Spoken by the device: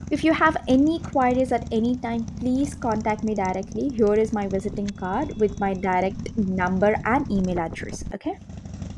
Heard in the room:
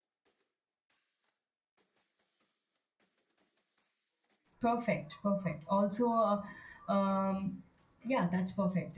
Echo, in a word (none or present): none